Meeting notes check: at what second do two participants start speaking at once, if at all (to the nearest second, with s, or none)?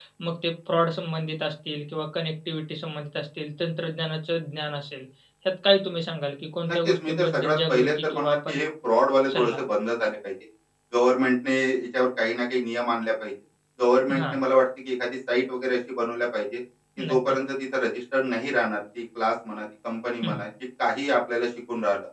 7 s